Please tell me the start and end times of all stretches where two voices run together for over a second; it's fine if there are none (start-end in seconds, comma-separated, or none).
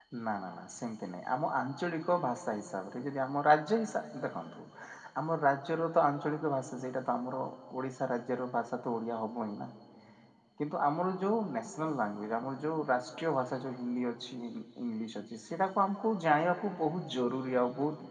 none